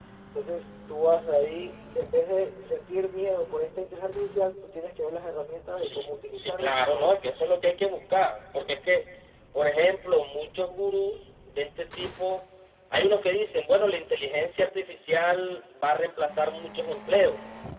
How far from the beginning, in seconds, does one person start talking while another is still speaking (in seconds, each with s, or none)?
5.8 s